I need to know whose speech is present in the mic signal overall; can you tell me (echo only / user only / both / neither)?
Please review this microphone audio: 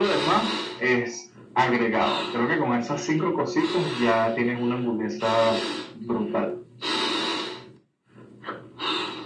echo only